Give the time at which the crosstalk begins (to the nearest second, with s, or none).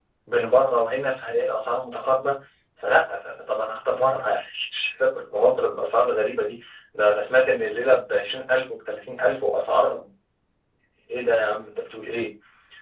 none